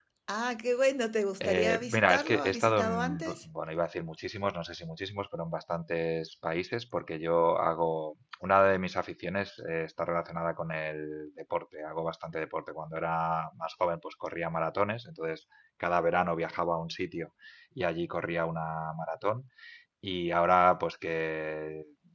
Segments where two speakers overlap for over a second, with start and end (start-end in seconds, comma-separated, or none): 1.4-3.4